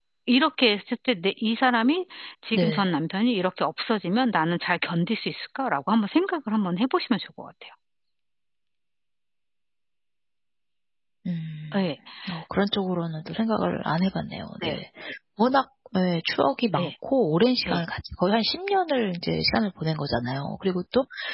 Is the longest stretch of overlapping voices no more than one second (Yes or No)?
Yes